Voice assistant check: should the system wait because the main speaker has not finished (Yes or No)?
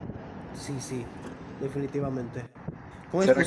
No